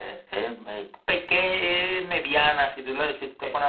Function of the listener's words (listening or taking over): listening